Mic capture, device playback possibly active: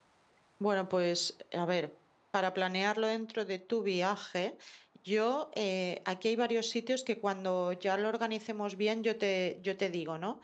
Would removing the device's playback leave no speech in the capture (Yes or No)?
No